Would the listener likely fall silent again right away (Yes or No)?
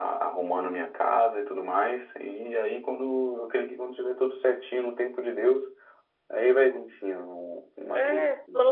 No